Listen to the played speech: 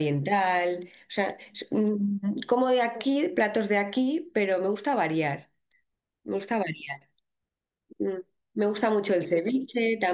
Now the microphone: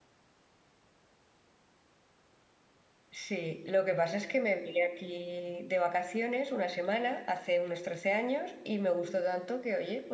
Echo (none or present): none